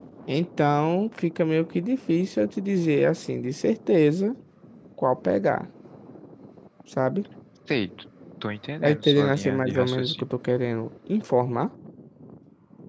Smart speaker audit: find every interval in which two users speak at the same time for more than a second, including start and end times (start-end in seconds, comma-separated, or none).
8.8-10.2